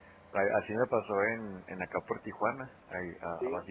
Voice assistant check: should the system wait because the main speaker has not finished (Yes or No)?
Yes